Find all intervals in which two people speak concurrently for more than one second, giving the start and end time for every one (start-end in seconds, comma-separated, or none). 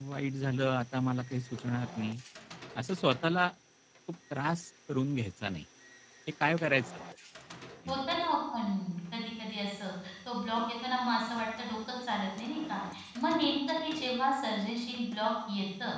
none